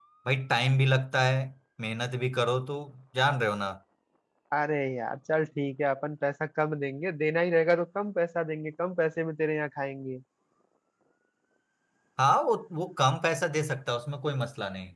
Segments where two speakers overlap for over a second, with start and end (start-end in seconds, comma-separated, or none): none